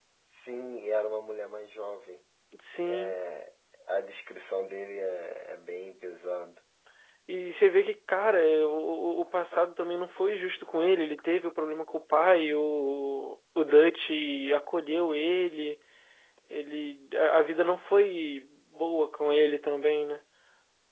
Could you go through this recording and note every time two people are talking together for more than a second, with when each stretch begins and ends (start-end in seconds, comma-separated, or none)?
none